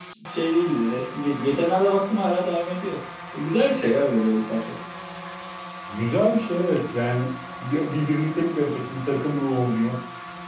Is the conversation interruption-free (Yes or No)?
Yes